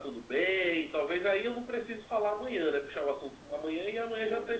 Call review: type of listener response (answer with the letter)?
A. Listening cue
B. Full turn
B